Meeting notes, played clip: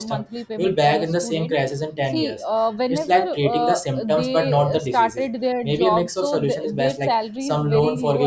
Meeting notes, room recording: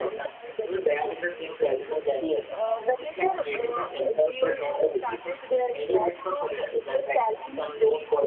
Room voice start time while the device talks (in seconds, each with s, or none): none